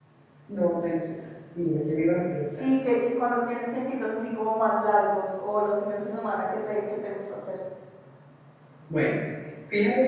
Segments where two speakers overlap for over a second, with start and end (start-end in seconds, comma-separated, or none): none